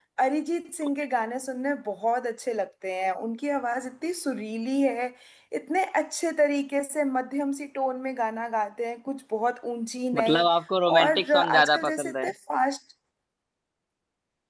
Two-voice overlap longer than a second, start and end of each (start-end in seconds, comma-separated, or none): 11.0-12.3